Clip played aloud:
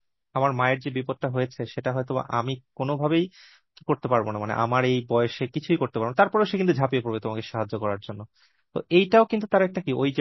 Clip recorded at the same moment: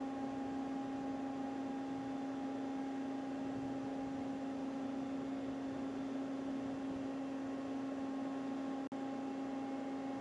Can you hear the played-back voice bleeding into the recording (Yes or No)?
No